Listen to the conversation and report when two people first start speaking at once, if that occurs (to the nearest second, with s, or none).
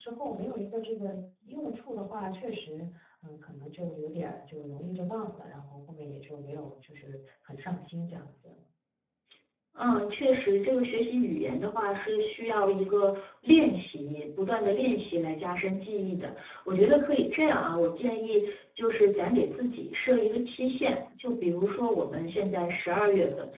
none